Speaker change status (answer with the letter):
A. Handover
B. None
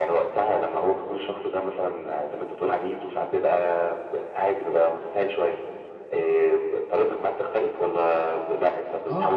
A